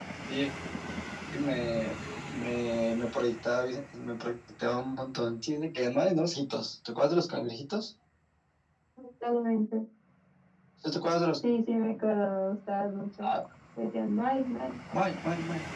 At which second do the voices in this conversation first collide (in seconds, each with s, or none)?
none